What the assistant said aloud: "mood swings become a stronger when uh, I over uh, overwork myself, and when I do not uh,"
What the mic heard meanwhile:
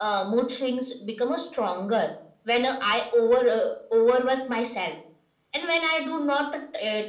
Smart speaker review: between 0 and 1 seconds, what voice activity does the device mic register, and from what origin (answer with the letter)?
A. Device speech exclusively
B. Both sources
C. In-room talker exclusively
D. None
A